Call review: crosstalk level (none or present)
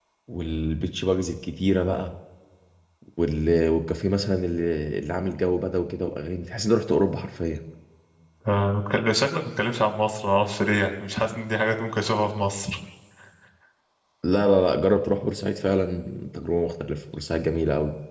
none